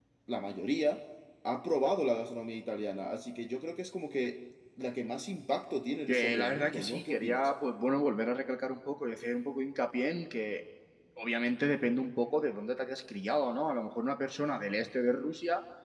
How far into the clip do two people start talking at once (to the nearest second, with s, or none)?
6 s